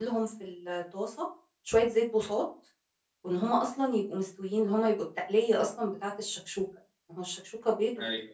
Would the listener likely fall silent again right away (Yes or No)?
Yes